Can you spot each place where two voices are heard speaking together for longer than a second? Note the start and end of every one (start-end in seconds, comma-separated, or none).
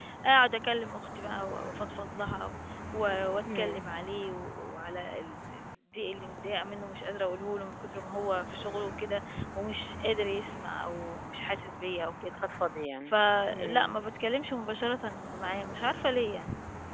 none